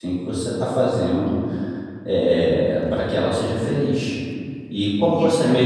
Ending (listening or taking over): listening